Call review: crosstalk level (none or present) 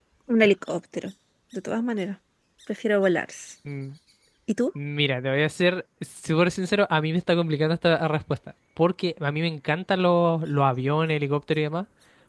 none